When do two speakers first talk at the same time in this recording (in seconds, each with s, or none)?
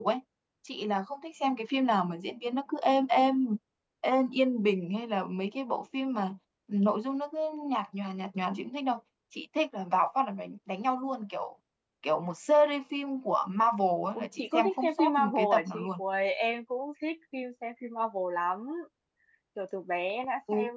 14.1 s